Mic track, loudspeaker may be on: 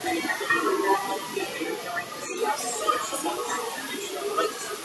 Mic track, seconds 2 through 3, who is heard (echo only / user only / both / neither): echo only